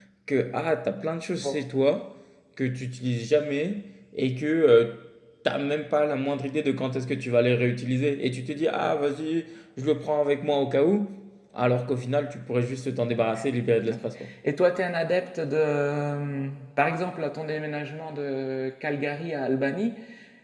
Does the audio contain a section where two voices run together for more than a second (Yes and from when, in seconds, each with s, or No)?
No